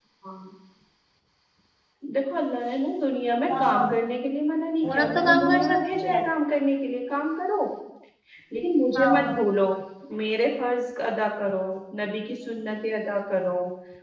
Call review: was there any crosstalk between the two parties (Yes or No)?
Yes